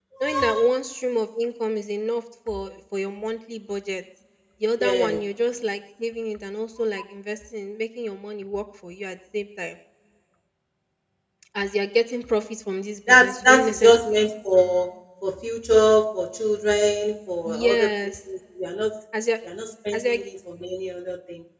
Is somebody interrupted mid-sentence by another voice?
Yes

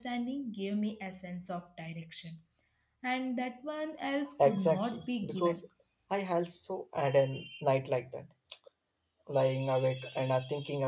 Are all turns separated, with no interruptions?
No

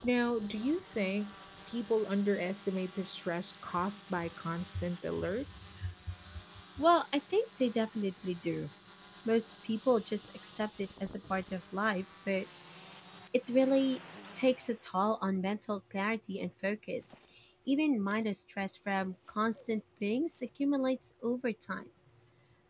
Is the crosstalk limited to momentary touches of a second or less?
Yes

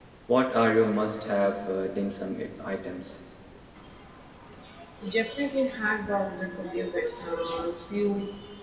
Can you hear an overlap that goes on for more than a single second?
No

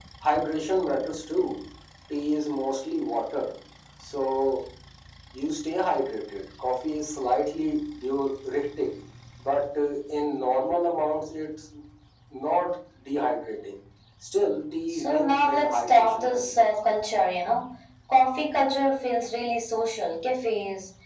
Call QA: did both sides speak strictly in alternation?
No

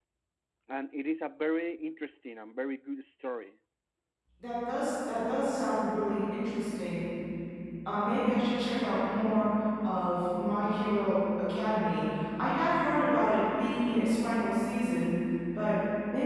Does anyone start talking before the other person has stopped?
No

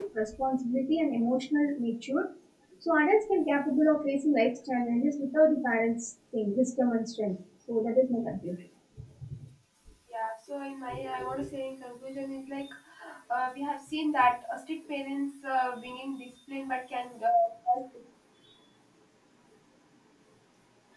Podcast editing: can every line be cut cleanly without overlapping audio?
Yes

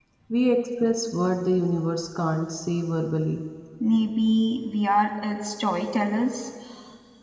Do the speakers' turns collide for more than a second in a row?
No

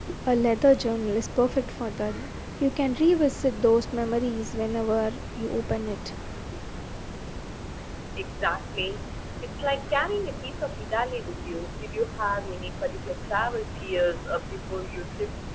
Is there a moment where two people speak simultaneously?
No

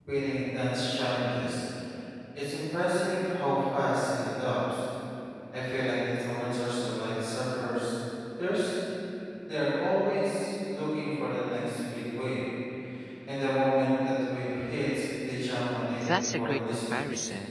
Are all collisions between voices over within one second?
No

